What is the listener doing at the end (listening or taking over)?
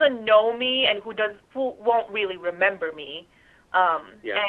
listening